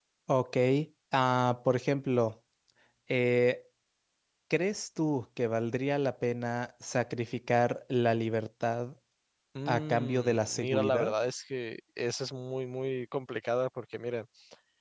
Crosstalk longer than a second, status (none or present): present